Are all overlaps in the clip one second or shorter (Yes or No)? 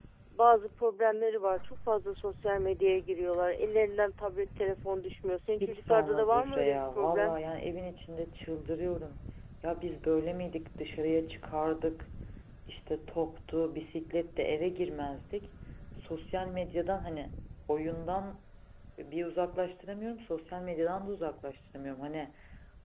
No